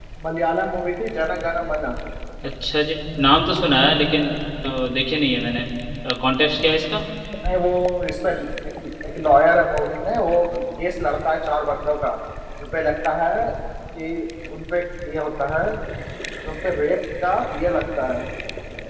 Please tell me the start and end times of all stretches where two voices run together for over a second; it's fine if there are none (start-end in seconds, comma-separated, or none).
none